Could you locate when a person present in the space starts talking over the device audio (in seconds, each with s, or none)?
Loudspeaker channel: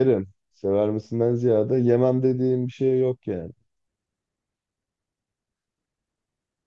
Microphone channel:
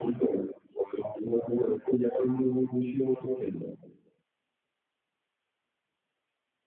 none